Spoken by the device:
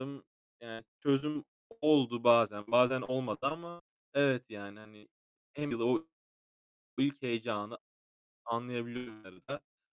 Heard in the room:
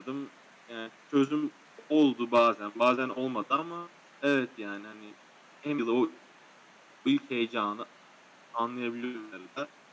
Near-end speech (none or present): none